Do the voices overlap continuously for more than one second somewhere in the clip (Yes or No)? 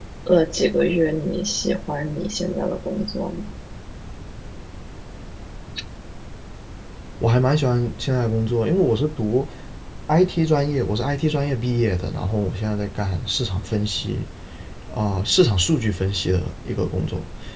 No